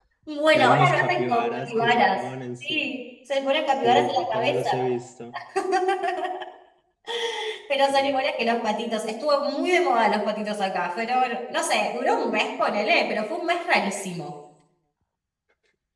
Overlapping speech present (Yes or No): Yes